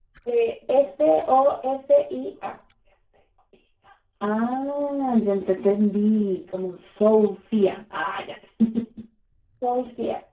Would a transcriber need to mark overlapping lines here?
No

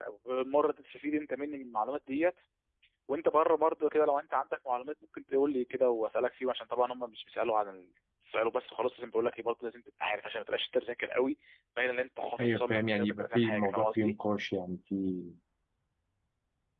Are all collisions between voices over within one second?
No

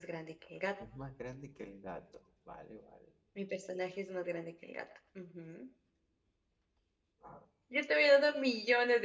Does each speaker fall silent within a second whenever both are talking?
Yes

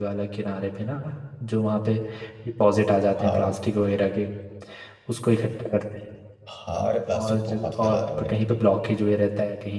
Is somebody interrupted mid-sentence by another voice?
Yes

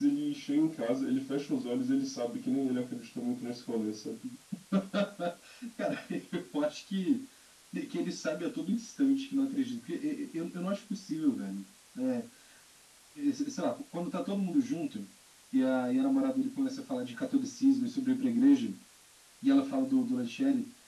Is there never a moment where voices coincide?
Yes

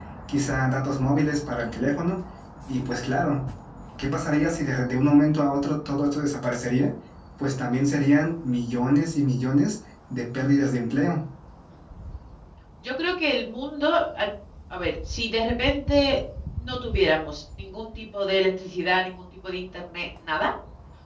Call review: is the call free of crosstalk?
Yes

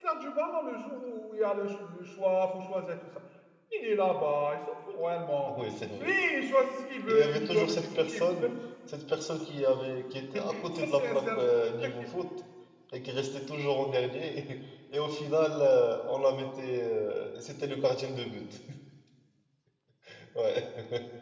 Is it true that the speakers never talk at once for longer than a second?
No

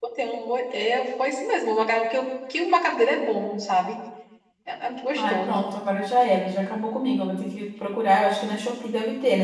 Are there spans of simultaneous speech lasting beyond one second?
No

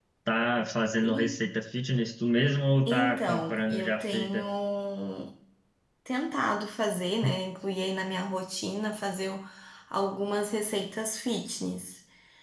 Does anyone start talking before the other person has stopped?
Yes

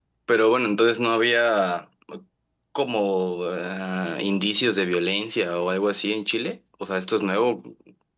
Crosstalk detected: No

